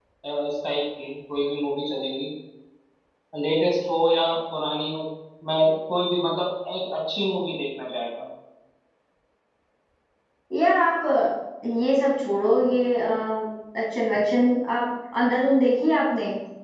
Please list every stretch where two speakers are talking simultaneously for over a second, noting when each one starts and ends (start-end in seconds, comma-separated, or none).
none